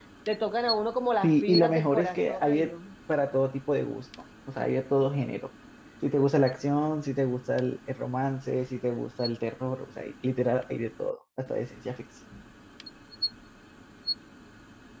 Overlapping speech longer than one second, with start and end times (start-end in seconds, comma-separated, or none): 1.2-2.7